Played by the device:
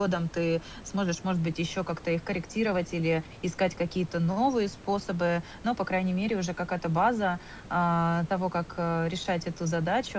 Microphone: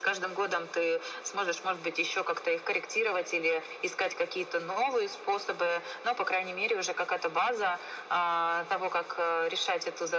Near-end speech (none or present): none